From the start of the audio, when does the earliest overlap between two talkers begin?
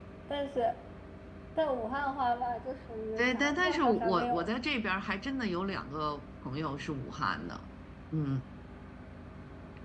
3.2 s

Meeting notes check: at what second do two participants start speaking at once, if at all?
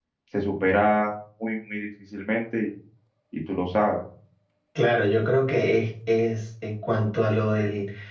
none

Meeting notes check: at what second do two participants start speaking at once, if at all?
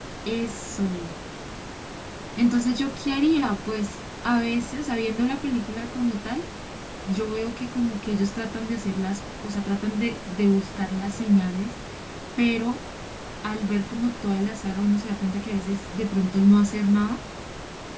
none

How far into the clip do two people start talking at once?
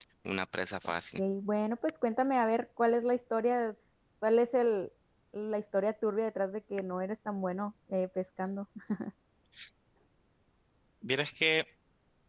none

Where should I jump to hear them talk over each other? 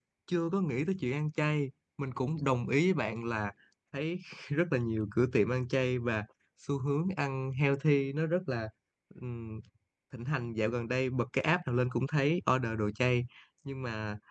none

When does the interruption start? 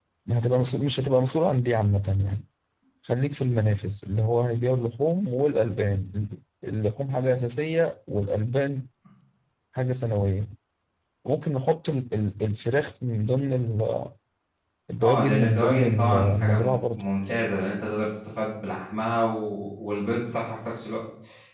15.0 s

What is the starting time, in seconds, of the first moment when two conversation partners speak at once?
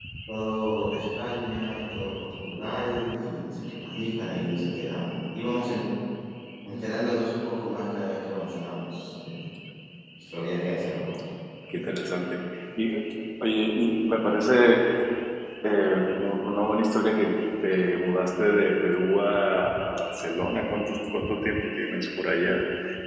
none

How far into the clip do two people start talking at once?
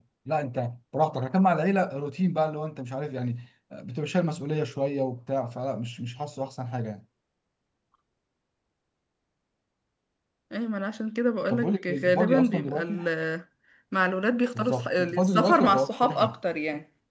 11.5 s

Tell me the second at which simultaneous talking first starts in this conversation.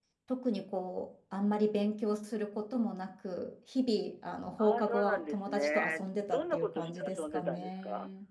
4.6 s

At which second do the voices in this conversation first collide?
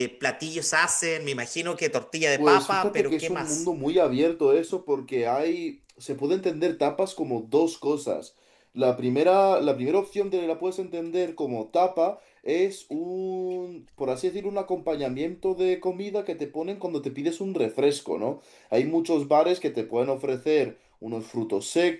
2.4 s

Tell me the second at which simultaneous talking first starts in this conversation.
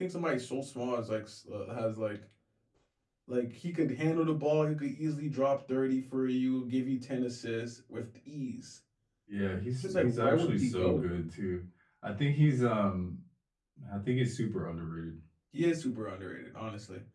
9.8 s

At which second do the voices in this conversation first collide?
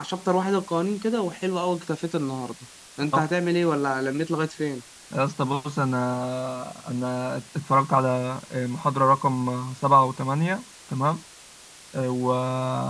none

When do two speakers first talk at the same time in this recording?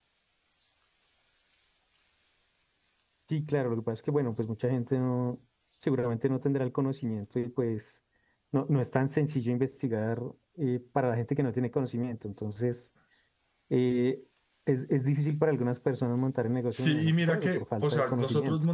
16.7 s

